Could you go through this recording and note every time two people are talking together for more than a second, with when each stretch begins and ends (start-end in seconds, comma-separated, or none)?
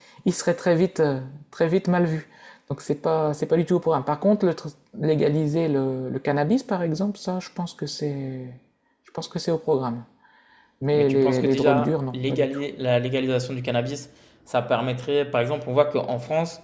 10.9-12.5